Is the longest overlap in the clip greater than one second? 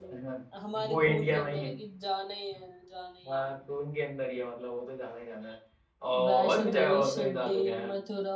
Yes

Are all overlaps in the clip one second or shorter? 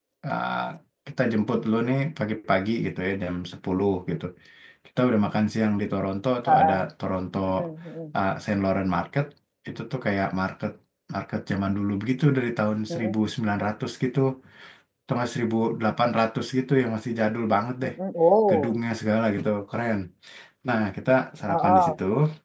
Yes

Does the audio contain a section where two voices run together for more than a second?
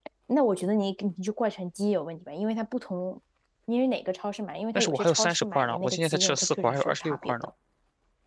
Yes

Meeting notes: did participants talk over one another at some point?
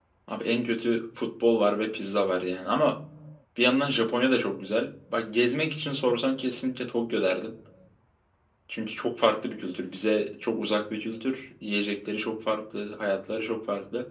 No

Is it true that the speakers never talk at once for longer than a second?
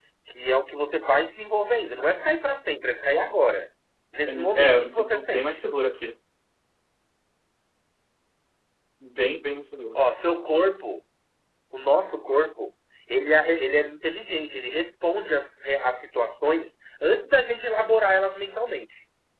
No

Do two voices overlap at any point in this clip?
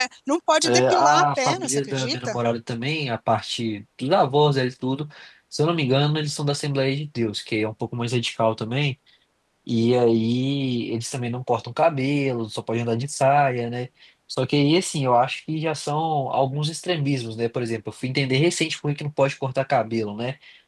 Yes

